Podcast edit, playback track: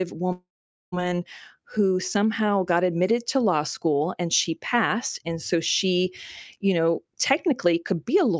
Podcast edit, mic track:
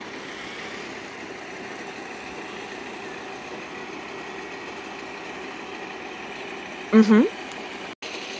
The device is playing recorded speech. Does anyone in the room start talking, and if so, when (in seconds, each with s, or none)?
6.9 s